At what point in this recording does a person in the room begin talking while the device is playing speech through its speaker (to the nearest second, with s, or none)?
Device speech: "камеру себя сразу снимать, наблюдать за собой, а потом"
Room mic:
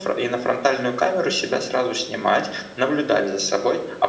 none